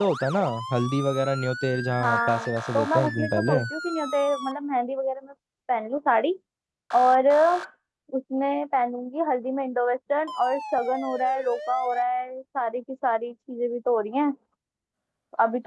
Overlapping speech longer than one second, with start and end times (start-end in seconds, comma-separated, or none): 2.0-3.6